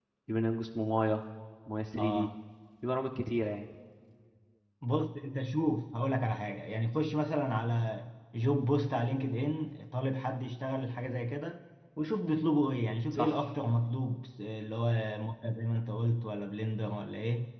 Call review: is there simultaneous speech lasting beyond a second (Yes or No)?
No